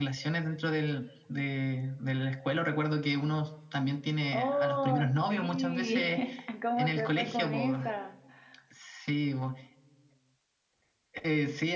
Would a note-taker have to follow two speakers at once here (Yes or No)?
Yes